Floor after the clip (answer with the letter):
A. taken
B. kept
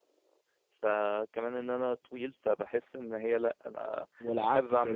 A